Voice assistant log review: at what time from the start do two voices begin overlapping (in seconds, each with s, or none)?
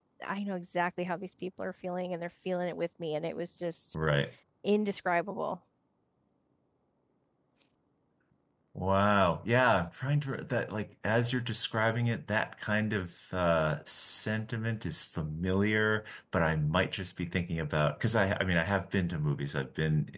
none